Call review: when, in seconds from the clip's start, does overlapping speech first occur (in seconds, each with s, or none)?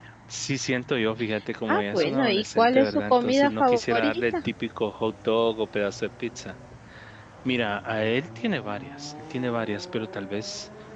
1.7 s